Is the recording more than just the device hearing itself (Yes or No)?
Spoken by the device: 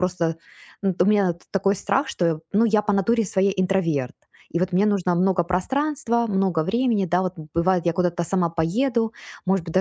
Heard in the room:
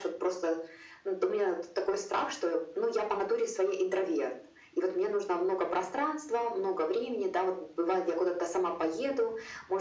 No